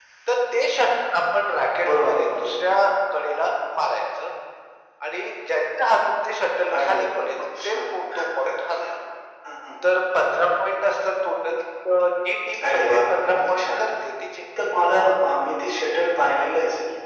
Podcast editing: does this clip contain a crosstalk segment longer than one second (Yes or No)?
Yes